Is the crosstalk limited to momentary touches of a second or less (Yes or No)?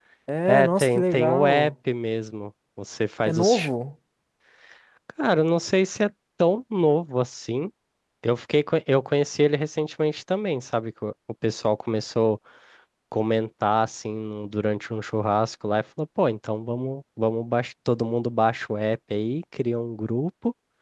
No